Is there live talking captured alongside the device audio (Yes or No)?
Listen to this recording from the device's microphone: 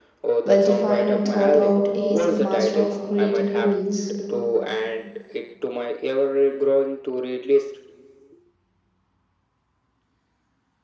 Yes